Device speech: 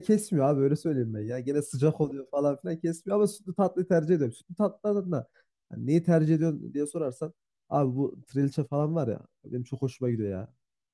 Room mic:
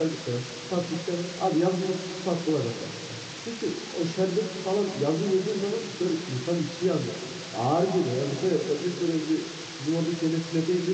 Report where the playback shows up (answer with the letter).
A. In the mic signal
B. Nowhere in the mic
B